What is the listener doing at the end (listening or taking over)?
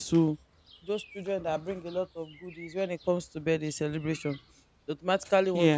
listening